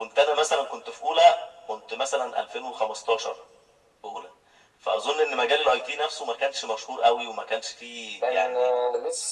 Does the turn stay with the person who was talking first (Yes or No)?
No